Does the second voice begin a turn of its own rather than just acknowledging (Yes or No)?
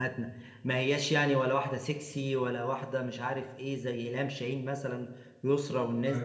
No